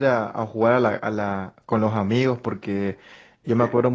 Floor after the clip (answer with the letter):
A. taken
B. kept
B